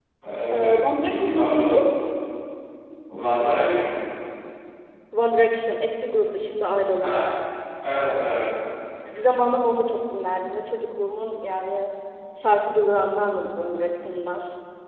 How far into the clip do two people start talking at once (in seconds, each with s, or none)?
0.5 s